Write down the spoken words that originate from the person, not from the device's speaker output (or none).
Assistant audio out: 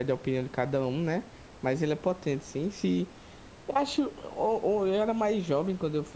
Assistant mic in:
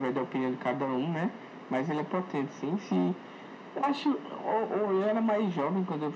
none